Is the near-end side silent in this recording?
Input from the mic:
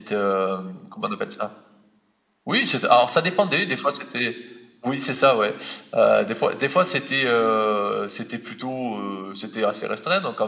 Yes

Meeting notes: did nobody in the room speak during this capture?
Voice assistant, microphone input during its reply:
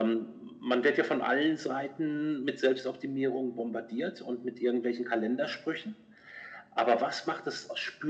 Yes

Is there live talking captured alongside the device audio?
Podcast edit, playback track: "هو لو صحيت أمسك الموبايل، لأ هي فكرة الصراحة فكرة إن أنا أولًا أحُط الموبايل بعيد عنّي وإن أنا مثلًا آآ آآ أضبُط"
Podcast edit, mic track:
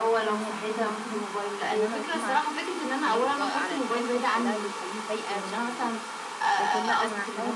Yes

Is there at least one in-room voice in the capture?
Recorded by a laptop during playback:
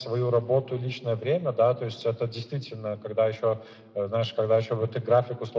No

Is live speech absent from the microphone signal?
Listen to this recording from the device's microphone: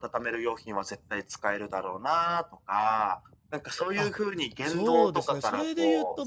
No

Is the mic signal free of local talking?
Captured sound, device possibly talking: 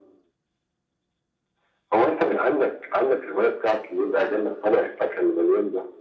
Yes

